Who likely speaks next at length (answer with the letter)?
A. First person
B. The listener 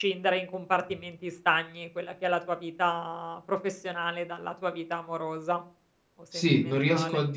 B